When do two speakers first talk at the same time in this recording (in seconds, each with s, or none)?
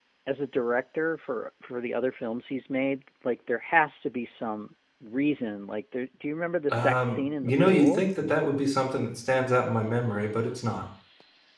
6.7 s